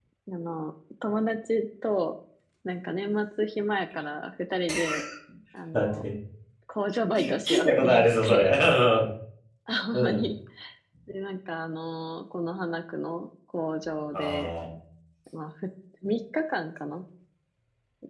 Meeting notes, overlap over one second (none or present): present